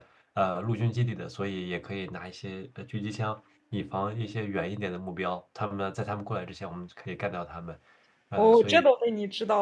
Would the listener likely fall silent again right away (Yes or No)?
No